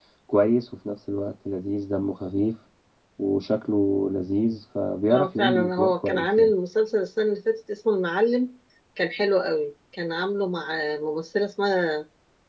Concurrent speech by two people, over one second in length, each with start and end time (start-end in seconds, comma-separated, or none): 5.1-6.5